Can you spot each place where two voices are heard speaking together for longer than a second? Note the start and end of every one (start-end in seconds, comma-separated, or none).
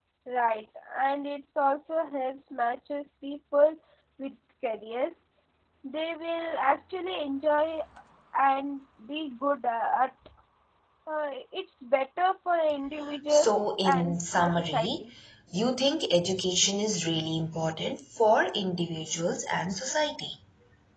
13.3-15.0